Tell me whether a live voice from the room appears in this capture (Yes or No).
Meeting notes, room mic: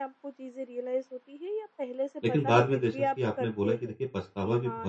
Yes